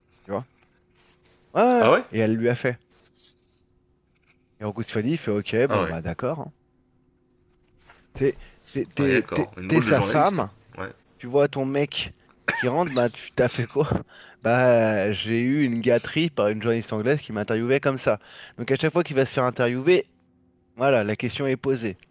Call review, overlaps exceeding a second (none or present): present